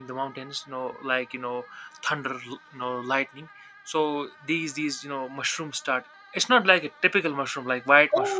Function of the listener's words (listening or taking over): taking over